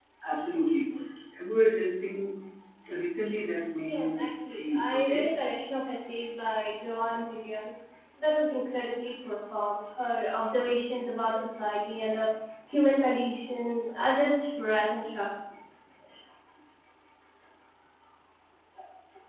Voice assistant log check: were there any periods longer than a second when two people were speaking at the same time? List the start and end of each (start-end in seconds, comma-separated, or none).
3.8-5.3